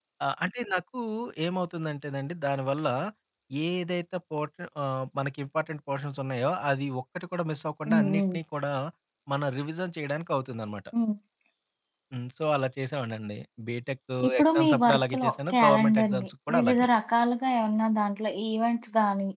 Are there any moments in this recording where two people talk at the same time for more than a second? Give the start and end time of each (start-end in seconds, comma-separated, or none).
14.4-16.9